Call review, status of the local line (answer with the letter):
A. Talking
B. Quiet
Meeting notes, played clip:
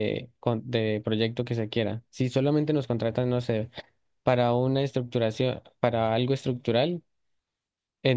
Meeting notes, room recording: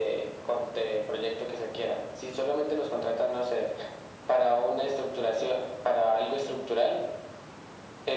B